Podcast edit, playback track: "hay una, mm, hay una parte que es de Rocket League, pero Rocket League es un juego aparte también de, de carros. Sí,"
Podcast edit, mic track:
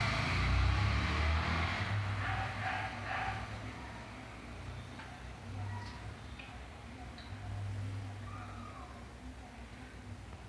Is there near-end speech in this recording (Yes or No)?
No